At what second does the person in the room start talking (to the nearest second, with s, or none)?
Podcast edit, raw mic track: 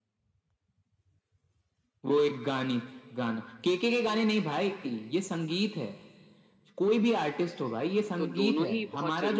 8 s